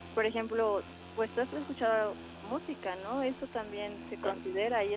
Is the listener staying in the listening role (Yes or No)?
Yes